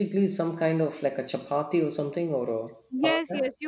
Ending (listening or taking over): taking over